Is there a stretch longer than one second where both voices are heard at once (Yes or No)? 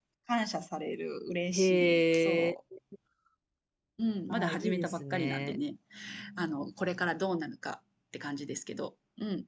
Yes